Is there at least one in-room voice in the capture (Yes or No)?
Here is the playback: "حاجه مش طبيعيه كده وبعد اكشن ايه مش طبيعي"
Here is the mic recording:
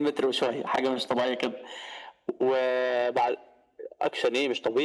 No